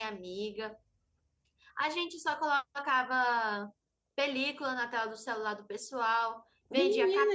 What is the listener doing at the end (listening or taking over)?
taking over